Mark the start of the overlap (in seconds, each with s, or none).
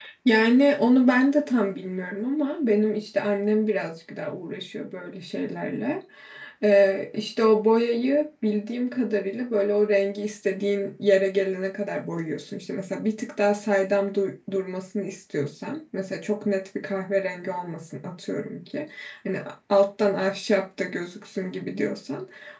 none